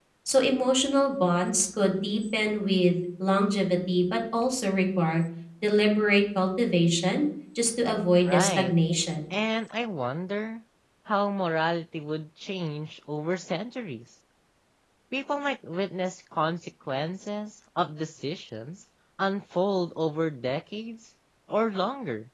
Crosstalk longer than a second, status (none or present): none